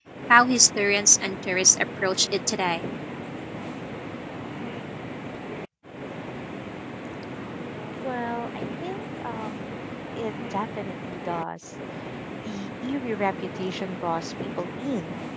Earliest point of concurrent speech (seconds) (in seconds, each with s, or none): none